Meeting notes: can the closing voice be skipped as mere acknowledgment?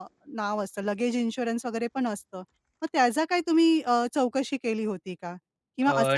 Yes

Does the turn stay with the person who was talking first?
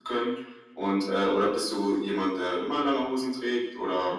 No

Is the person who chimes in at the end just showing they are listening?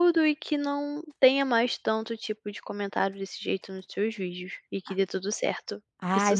No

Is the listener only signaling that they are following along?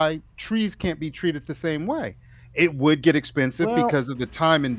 Yes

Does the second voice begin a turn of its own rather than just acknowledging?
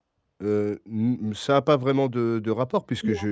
No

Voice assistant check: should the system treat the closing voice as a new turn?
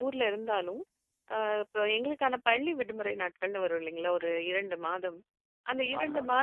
No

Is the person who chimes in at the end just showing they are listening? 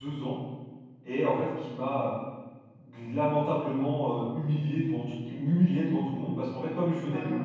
Yes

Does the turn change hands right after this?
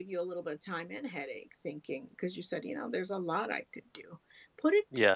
No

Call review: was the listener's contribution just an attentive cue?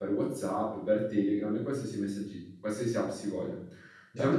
No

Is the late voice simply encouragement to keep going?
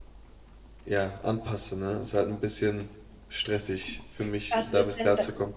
No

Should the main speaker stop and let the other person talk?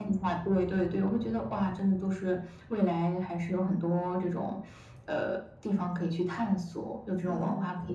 Yes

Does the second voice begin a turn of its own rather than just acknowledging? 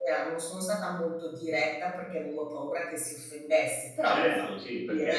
Yes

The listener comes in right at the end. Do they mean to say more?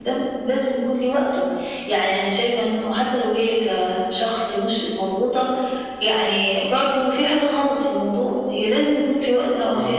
No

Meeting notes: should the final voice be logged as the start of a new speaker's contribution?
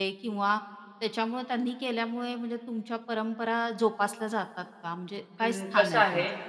Yes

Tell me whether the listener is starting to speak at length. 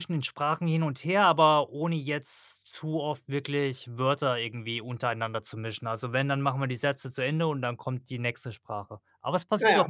No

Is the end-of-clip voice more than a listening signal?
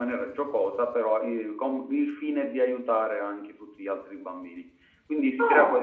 No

